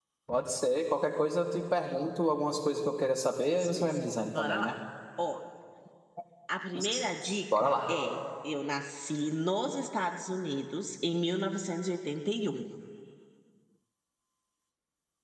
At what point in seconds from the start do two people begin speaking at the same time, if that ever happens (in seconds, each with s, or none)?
3.5 s